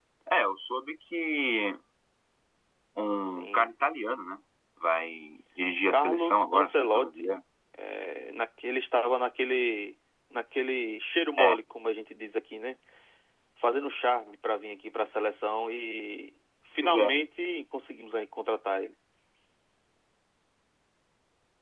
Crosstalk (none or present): present